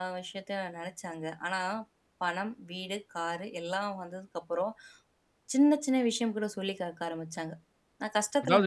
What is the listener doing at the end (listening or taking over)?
taking over